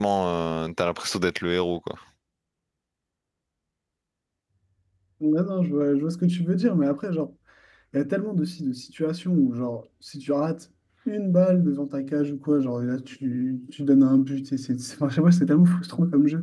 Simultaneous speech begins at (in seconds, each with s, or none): none